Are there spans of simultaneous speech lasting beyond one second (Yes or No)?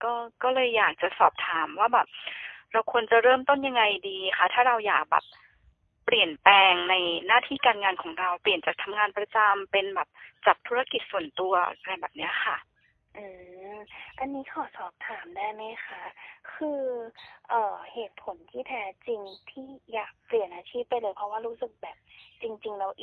No